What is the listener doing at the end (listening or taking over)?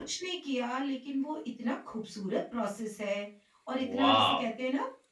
listening